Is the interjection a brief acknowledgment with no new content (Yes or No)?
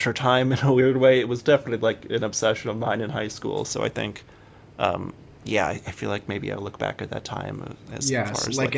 No